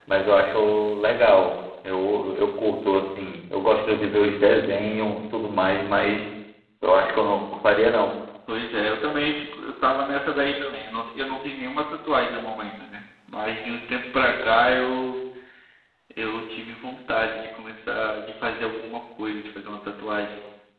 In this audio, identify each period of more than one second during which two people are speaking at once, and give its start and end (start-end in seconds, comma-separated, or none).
none